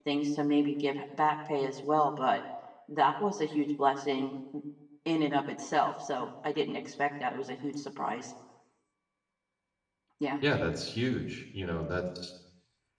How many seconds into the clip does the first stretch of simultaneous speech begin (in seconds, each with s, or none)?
none